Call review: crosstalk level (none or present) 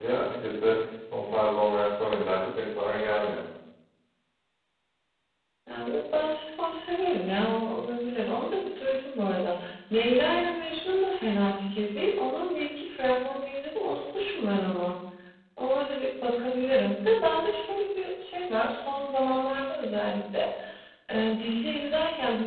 none